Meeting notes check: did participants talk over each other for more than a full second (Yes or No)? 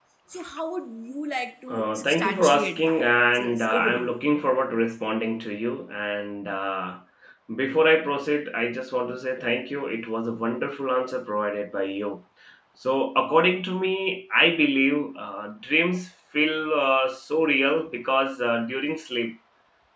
Yes